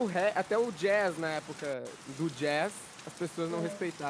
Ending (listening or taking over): listening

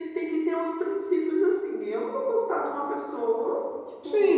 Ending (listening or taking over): taking over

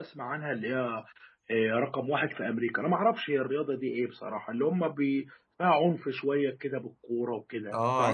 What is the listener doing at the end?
taking over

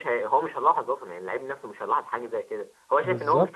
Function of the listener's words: taking over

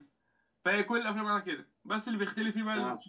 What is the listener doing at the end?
listening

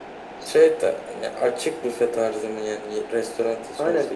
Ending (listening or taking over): taking over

